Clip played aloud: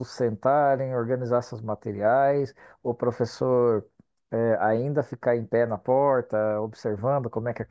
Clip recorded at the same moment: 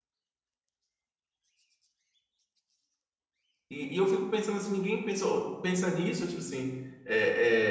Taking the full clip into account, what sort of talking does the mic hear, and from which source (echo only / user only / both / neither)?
user only